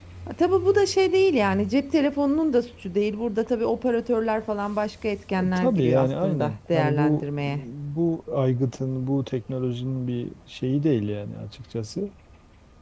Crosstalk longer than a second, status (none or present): present